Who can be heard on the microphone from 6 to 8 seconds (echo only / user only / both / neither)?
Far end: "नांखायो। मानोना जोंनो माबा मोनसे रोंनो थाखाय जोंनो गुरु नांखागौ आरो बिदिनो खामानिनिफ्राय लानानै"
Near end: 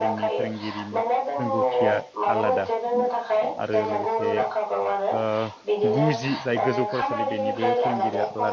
both